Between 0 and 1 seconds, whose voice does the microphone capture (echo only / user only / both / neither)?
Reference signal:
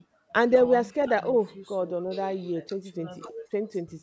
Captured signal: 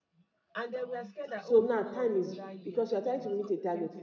echo only